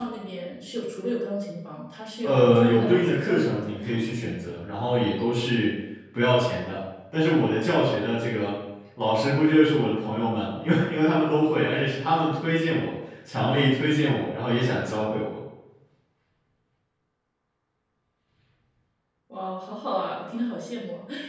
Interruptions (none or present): present